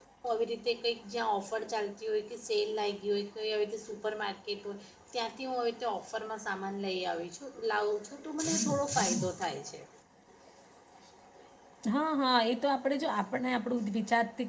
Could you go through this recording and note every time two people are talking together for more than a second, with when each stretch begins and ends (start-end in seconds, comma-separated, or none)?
none